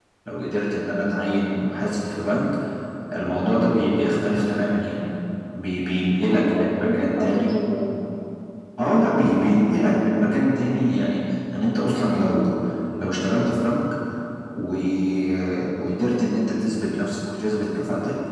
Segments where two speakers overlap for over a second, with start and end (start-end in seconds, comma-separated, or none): 6.2-7.5